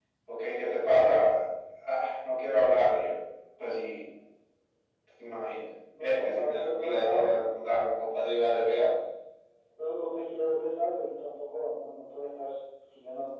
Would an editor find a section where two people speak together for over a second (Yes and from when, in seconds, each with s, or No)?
Yes, from 5.9 s